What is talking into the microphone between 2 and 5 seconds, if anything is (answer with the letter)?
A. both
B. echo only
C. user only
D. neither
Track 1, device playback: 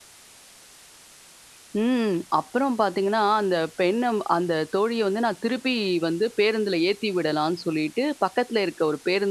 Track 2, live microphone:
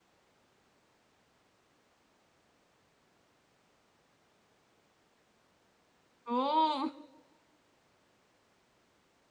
D